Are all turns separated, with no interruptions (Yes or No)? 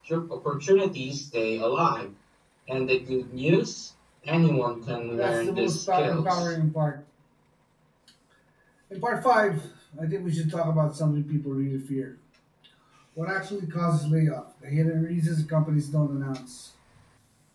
No